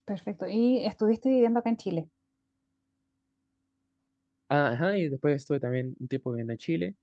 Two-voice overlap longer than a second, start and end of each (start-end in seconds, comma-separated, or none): none